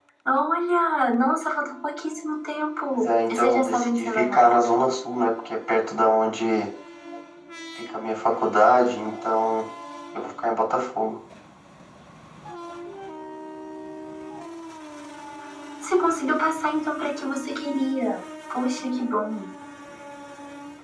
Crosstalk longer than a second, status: present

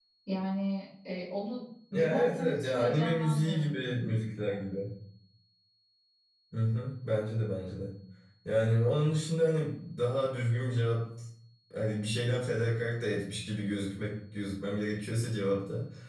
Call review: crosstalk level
present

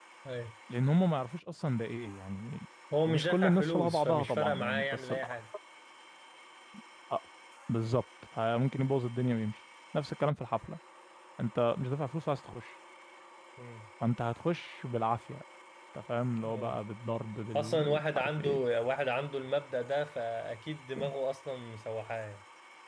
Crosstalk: present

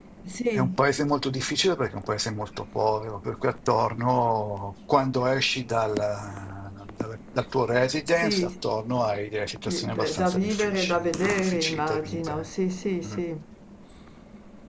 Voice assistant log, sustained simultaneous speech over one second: present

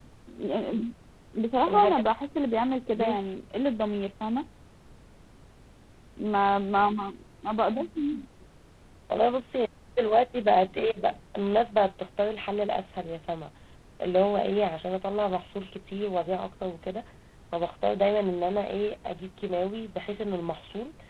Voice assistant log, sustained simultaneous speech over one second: none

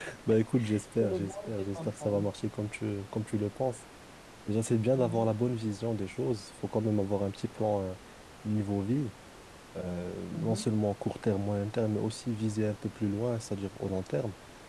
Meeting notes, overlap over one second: present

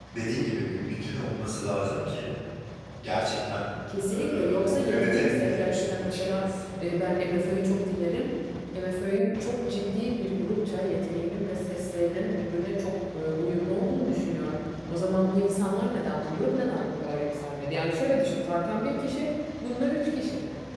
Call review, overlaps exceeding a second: present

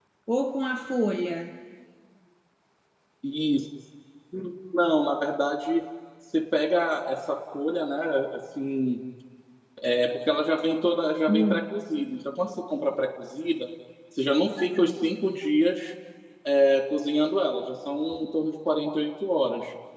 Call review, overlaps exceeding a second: none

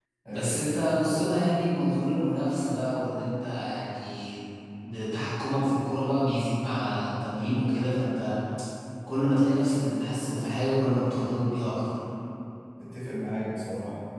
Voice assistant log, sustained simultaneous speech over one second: none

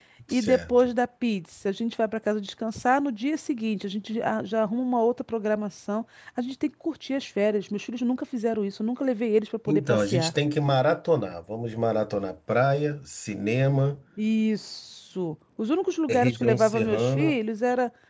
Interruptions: present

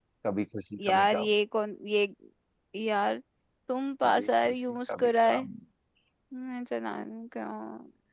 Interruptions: present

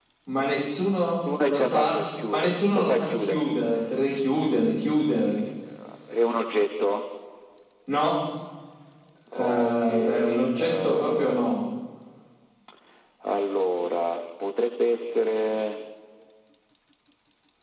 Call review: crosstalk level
present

